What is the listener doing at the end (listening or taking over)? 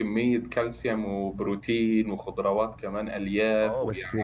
taking over